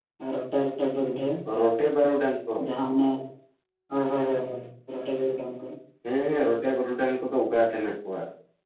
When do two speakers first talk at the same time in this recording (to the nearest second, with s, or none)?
none